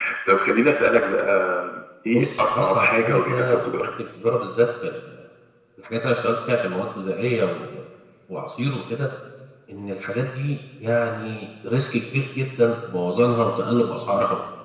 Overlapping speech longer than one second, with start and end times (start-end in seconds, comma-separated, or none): 2.1-3.7